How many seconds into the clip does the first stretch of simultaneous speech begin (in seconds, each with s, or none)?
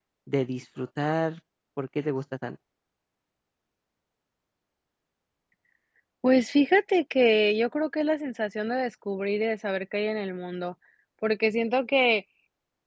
none